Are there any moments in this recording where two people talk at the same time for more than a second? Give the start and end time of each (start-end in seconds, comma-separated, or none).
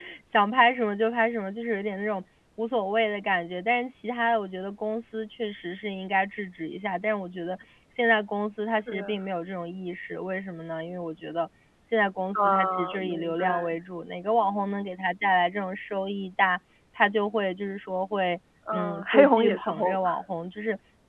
12.3-13.7, 18.7-20.0